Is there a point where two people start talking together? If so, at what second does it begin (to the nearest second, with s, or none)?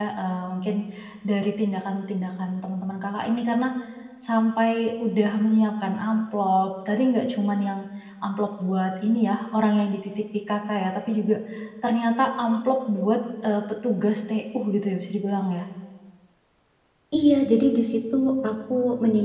none